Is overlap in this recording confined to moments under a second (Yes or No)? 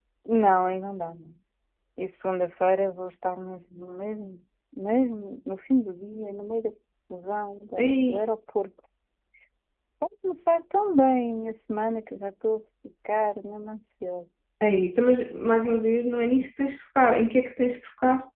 Yes